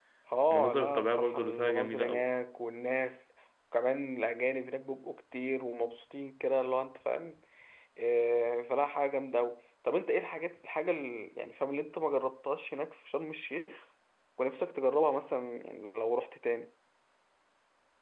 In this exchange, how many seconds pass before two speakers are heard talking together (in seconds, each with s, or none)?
0.5 s